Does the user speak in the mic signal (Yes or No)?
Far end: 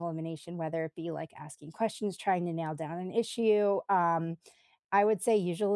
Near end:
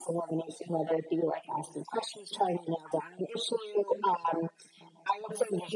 No